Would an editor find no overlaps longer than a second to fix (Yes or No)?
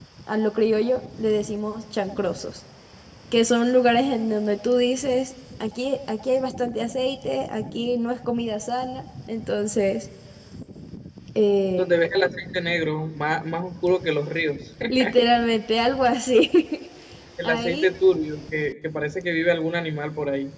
Yes